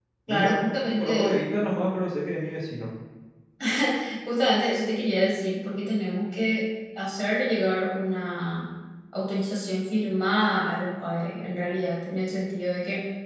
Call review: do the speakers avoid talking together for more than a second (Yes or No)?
Yes